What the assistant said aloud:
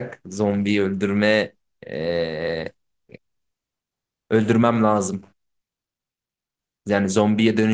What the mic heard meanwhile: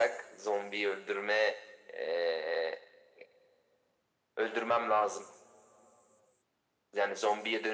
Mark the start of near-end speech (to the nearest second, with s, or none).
none